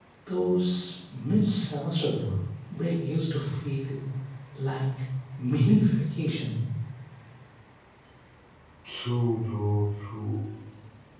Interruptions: none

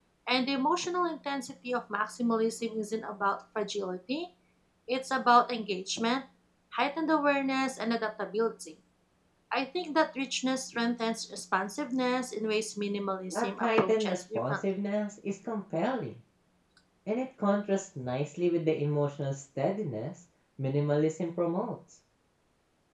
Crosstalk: present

